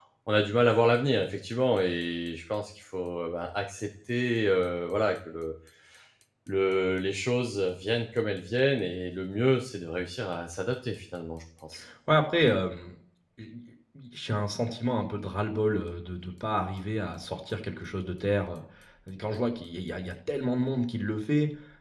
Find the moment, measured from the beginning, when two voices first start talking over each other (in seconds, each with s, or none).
none